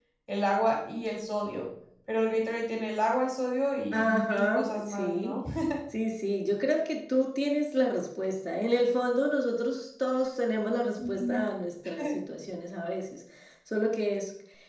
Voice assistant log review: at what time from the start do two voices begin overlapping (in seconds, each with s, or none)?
3.9 s